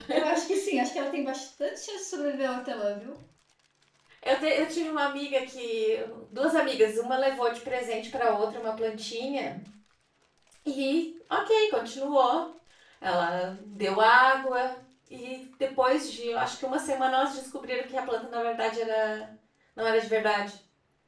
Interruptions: none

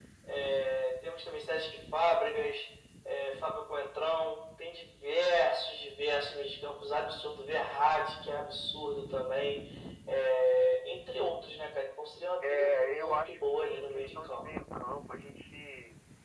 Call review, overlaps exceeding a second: present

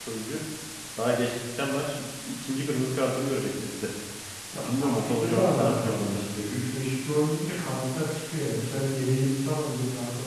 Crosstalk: present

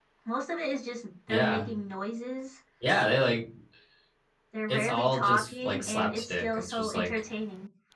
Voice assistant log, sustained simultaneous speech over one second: present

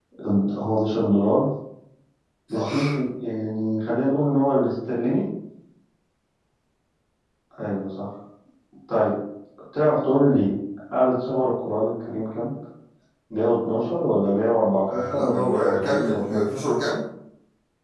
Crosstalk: present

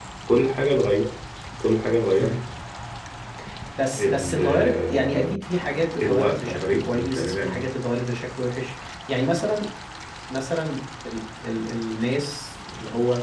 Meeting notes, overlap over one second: present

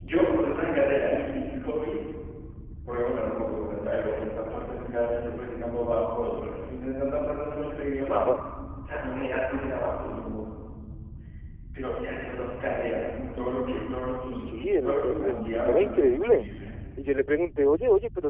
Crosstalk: present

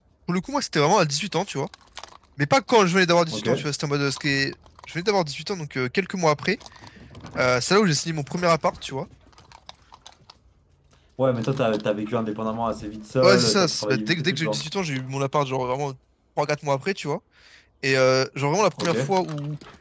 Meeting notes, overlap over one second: present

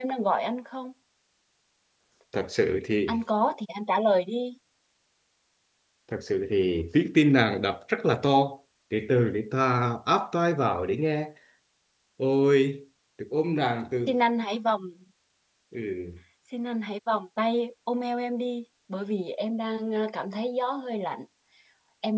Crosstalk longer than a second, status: none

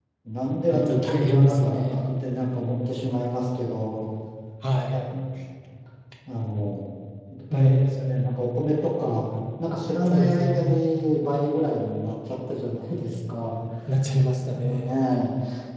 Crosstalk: present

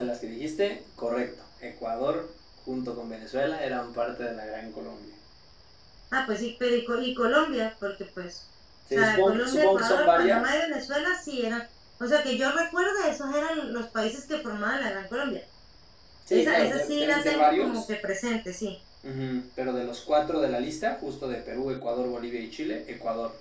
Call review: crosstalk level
present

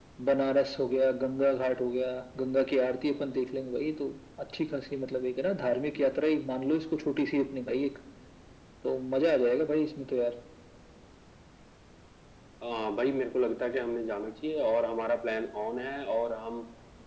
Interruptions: none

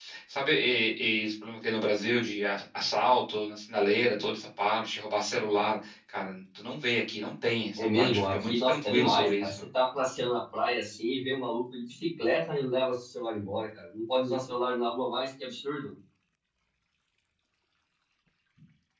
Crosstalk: present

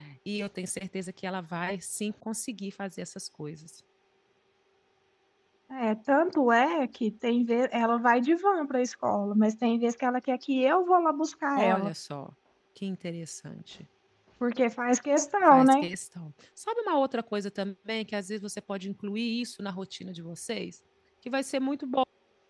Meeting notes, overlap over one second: none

